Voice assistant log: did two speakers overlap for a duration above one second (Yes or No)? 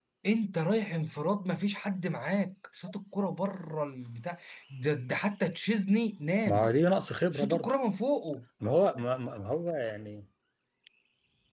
No